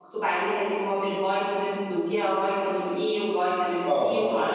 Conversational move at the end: listening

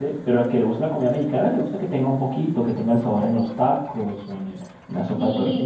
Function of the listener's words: taking over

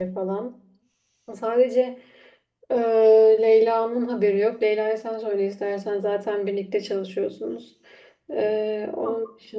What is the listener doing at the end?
listening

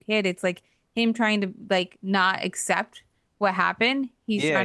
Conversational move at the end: taking over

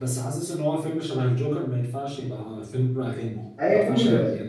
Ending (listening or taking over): taking over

